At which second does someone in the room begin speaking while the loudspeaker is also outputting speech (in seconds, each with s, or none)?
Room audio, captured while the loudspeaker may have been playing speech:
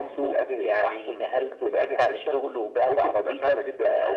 none